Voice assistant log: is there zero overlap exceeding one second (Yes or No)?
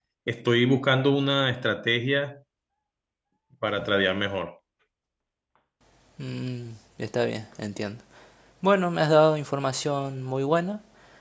Yes